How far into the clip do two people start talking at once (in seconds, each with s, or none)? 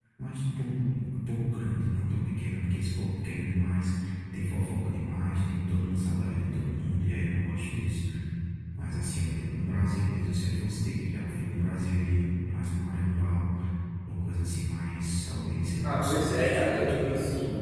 15.8 s